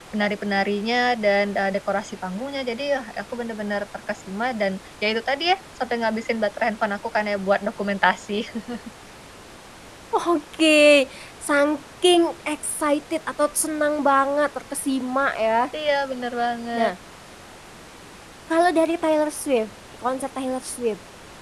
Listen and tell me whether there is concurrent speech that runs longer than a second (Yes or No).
No